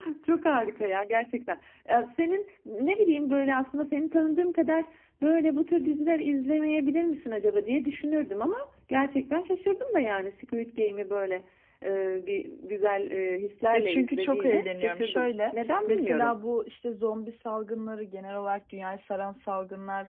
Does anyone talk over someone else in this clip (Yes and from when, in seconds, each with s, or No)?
Yes, from 13.7 s